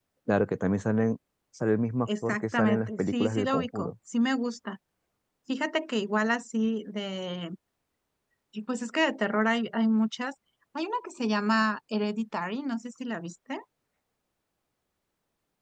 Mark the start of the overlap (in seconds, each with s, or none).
2.1 s